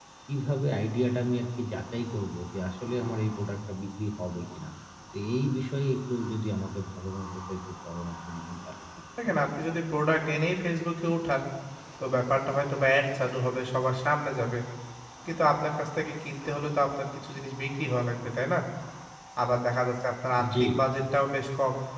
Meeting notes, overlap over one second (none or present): none